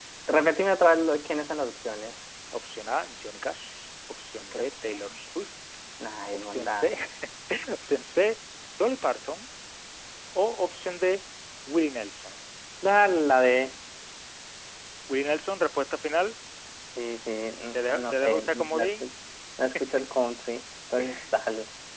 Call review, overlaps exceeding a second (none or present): present